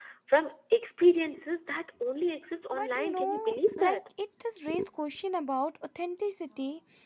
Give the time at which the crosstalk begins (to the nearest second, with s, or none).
3 s